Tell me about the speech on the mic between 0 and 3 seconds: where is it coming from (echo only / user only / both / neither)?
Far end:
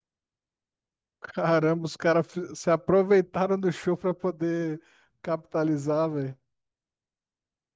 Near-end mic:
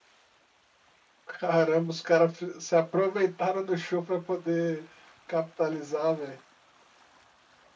echo only